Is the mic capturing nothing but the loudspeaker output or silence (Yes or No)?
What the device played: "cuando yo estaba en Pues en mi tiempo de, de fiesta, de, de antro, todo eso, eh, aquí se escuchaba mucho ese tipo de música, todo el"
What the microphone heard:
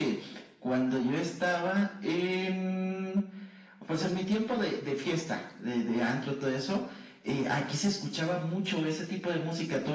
Yes